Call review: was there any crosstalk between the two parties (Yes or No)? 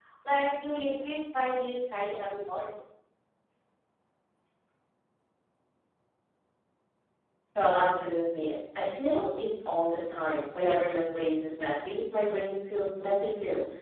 No